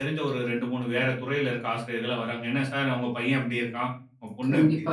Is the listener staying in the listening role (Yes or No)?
No